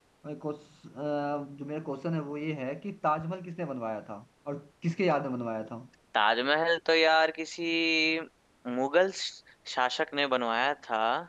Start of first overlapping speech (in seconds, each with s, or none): none